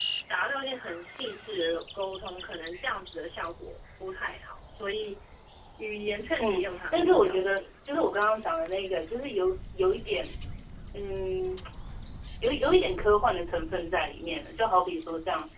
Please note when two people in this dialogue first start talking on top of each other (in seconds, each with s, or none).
6.4 s